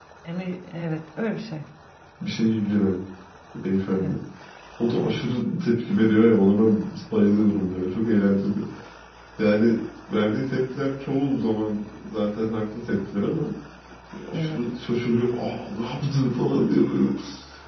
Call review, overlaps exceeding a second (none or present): none